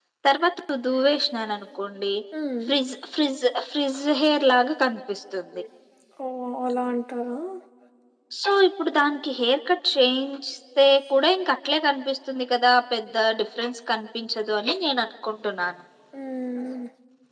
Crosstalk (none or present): none